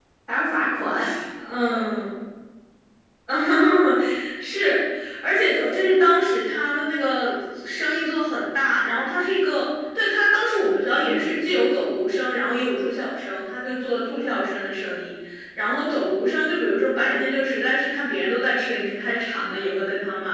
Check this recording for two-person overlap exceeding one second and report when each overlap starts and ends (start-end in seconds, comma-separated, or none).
none